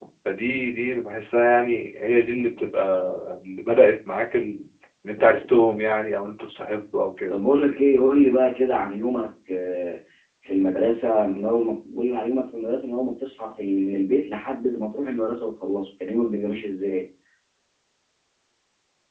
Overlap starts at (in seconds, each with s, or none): none